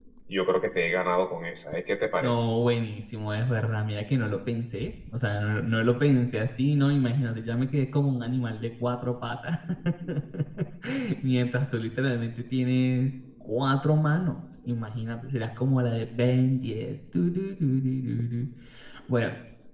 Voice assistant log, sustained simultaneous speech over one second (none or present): none